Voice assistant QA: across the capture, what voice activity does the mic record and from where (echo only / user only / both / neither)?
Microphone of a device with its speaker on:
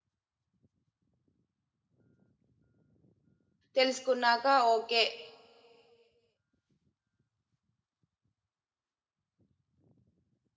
user only